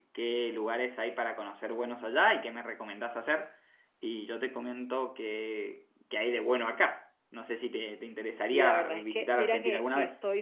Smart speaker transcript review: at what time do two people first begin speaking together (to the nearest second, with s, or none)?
9 s